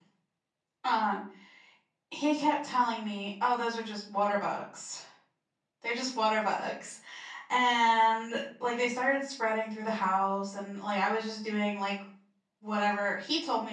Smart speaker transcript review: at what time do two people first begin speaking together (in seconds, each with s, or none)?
none